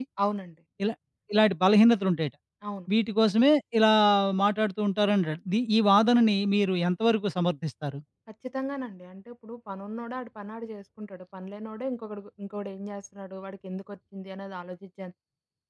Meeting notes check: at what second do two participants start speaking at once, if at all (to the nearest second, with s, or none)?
none